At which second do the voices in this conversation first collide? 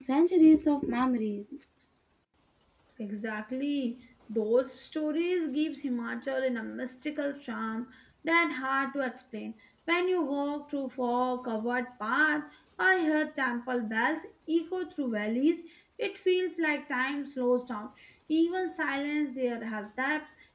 none

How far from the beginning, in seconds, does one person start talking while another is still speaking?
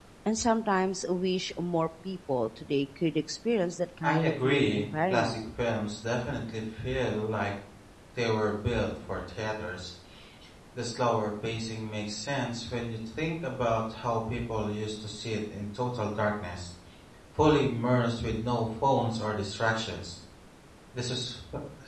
4.0 s

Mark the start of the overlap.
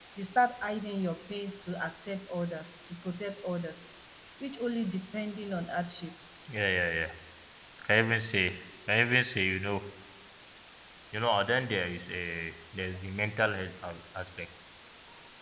none

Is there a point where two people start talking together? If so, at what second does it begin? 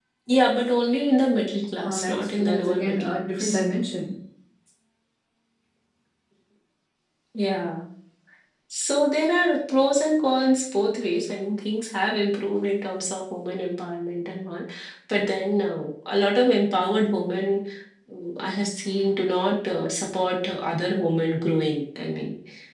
1.8 s

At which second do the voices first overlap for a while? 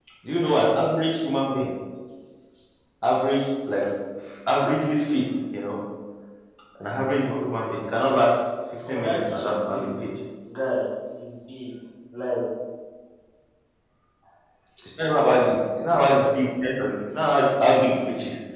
8.9 s

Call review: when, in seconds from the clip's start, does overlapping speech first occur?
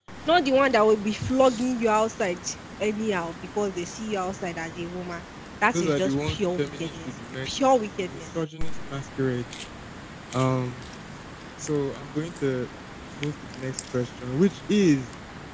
5.7 s

